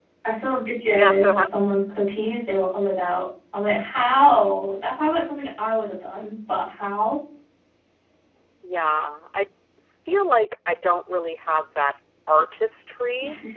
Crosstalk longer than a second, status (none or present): none